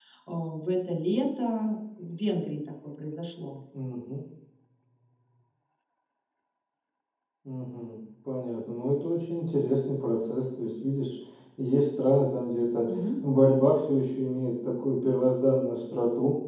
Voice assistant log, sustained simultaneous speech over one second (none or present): none